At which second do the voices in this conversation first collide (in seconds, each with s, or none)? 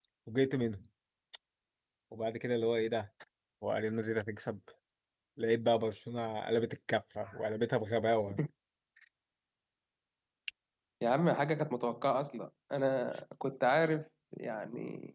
none